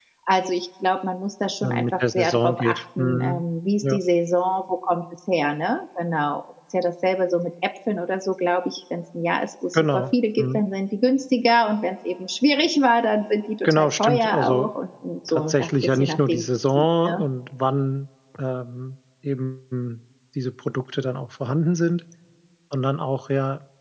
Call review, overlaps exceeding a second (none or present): present